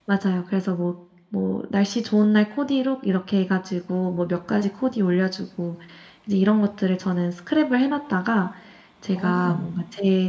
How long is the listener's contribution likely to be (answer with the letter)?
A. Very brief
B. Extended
A